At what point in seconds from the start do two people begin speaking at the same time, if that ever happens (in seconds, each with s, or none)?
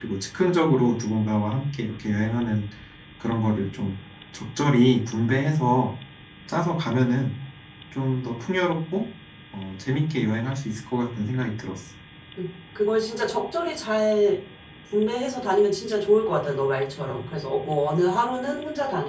none